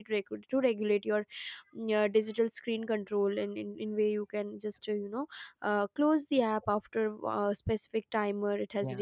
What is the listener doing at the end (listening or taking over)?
listening